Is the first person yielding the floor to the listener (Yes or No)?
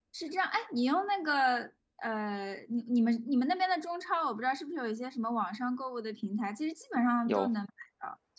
No